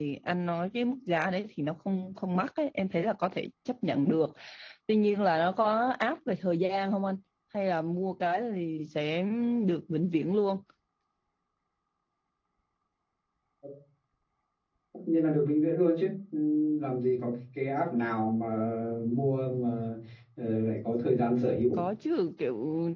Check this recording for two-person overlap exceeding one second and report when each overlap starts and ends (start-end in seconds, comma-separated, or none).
none